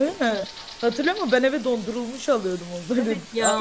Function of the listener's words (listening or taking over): taking over